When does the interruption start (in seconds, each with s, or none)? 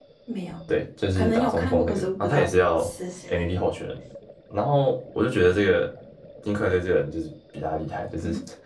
1.1 s